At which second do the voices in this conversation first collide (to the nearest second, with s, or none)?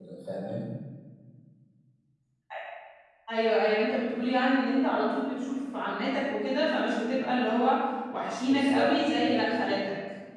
8 s